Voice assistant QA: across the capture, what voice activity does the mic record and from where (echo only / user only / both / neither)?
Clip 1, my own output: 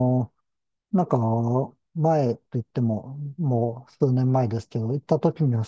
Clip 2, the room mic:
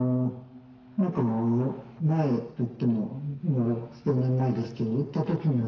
echo only